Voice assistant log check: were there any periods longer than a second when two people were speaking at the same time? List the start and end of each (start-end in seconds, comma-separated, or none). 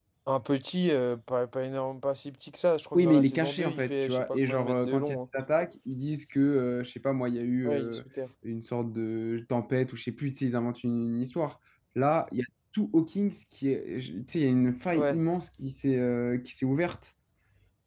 3.0-5.2